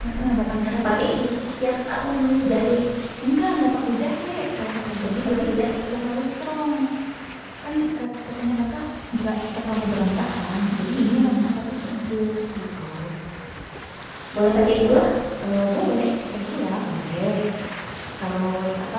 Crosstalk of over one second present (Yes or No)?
No